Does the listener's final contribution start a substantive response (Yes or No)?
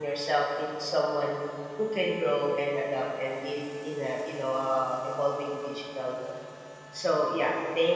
No